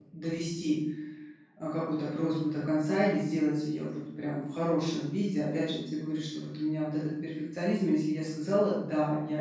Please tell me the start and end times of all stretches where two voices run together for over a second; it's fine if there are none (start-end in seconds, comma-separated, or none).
none